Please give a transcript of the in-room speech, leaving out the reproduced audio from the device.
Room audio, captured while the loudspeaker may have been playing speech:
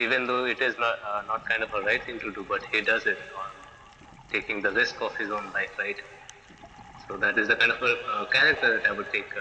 none

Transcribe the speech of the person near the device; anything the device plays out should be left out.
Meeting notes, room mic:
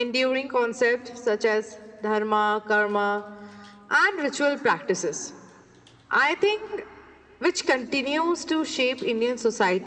none

